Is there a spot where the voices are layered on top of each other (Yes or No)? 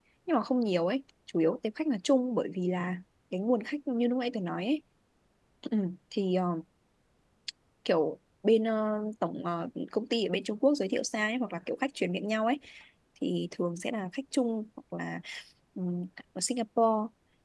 No